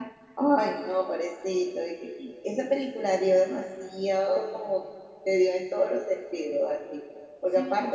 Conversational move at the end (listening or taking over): listening